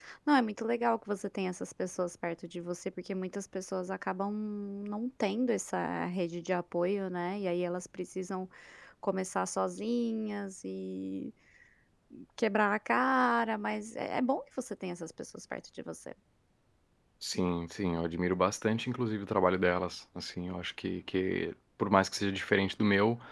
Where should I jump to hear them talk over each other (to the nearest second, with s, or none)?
none